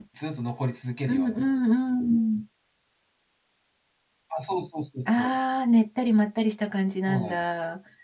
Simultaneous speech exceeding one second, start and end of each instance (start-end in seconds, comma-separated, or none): none